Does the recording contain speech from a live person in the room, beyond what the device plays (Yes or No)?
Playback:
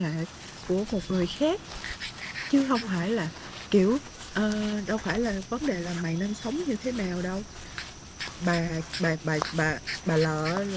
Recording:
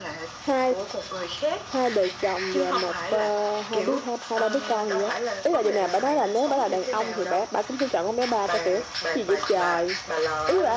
Yes